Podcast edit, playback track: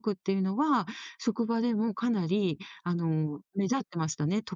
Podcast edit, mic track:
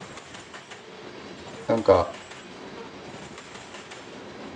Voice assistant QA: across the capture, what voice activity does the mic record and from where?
user only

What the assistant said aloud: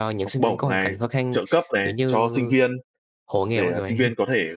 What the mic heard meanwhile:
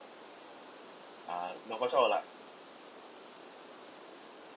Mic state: user only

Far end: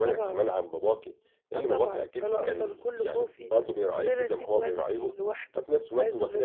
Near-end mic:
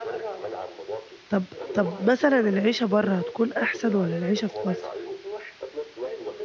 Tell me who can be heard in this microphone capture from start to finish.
both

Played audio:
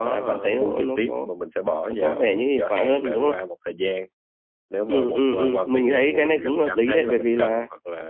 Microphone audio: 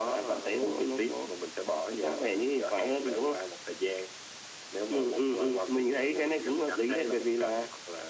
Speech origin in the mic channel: echo only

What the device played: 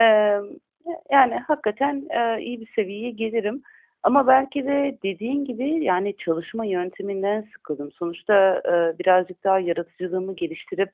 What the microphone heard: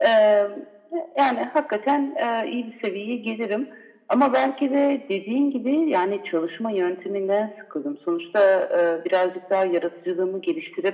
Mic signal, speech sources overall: echo only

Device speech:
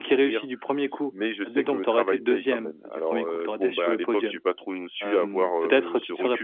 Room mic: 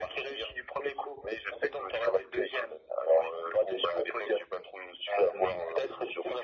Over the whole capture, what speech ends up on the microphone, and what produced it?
echo only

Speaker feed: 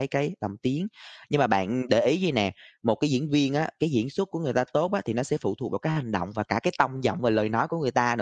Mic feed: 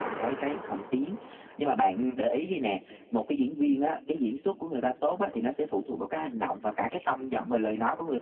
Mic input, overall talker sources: echo only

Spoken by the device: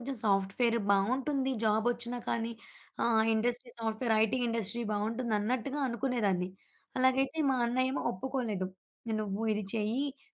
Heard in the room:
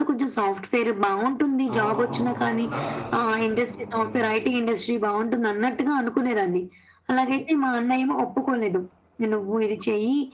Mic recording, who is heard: both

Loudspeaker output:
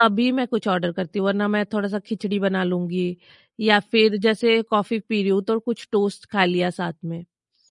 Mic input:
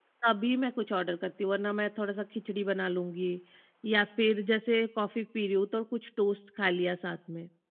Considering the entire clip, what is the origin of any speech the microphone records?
echo only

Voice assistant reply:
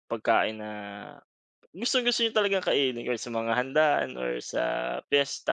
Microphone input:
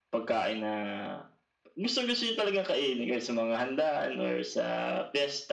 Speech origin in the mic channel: echo only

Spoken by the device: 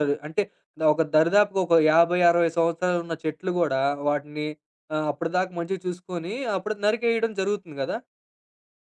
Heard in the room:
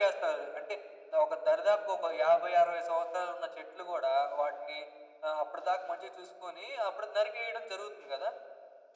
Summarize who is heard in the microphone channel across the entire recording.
echo only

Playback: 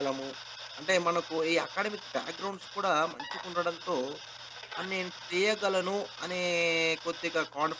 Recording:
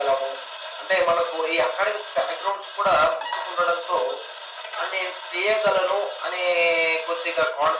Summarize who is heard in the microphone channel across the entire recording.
echo only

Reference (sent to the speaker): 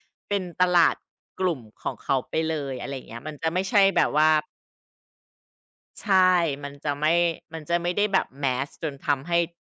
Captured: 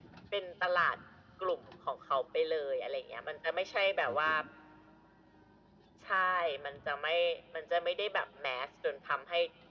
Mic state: both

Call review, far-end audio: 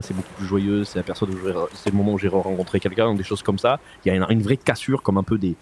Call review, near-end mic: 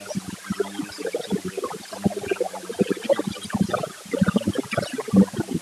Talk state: echo only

